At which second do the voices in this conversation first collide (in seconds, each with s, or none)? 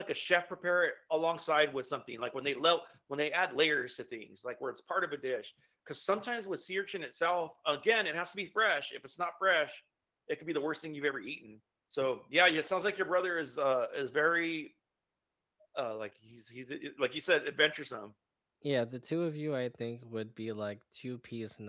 none